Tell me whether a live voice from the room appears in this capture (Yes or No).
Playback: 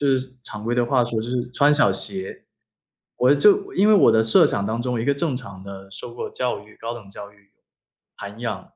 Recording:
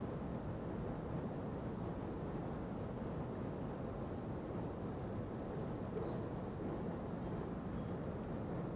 No